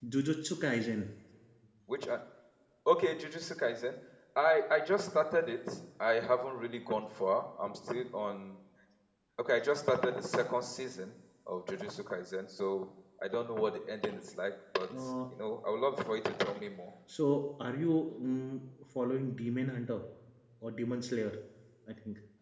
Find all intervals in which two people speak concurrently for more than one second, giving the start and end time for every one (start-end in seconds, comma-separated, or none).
none